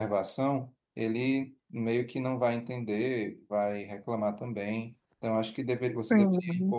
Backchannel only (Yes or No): Yes